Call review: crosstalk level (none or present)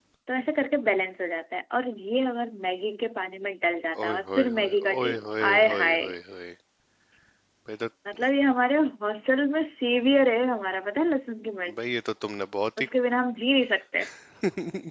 present